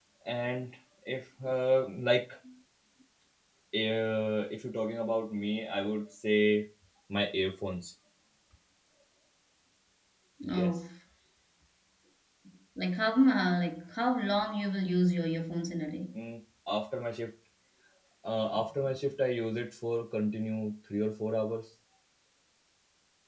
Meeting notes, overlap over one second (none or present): none